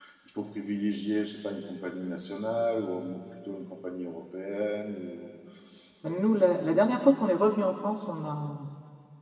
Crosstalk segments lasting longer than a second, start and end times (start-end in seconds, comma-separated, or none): none